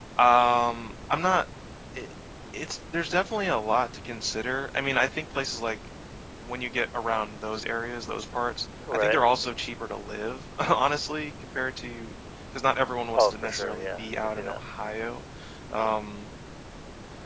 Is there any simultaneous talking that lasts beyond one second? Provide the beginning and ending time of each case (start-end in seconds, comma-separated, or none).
13.1-14.6